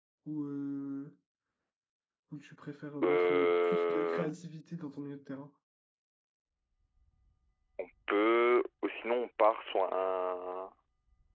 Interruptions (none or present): present